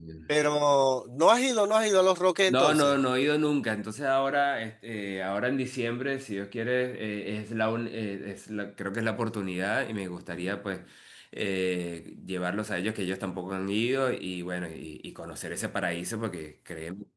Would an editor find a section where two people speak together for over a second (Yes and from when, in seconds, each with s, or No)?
No